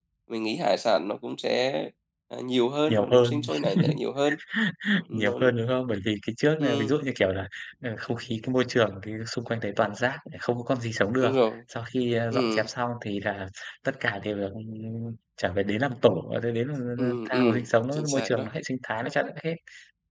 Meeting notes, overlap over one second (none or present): present